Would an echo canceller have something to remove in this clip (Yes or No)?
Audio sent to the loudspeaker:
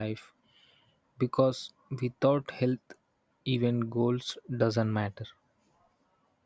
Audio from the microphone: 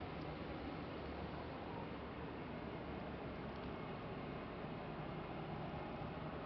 No